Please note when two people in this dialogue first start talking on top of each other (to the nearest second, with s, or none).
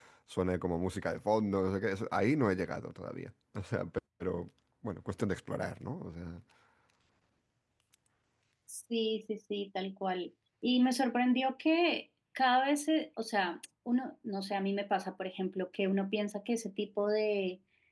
none